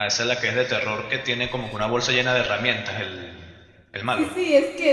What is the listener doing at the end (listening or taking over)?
taking over